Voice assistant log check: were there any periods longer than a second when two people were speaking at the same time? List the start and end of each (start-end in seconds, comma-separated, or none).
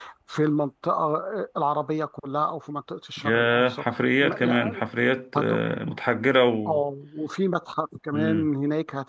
3.2-4.8